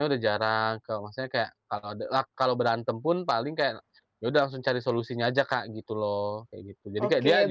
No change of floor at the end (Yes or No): No